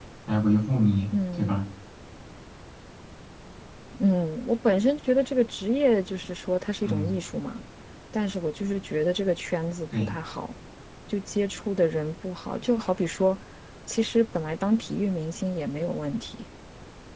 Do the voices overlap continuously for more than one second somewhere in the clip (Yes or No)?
No